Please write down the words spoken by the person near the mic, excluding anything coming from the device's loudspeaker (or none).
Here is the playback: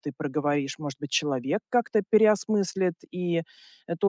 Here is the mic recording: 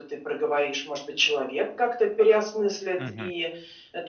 Мгм.